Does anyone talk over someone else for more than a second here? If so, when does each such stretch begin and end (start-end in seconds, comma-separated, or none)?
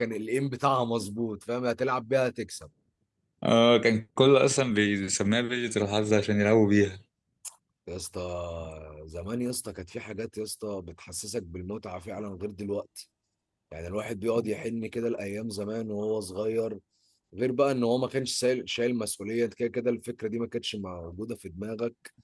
none